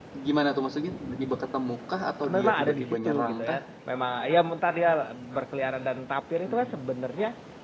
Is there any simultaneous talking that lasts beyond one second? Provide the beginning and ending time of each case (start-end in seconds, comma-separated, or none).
2.3-3.6